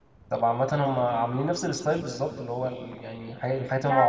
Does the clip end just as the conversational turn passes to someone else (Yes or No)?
No